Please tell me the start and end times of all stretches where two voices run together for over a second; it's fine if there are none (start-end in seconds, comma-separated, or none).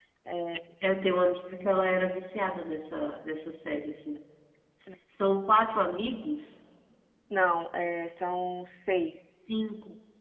none